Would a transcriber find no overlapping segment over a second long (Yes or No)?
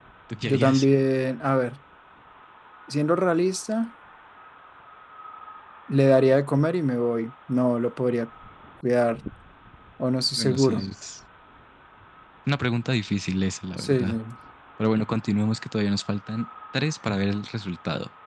Yes